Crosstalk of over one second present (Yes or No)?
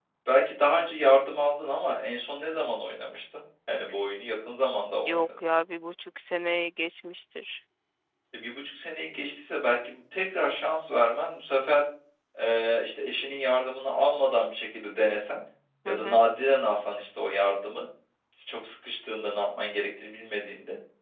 No